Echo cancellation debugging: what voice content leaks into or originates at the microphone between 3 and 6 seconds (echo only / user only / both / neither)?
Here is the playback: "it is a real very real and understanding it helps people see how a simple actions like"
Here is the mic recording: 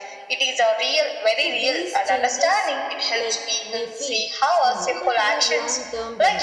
both